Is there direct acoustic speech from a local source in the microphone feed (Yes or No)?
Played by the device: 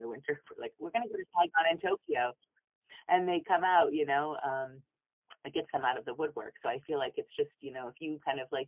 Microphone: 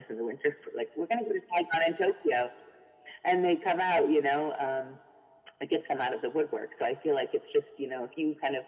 No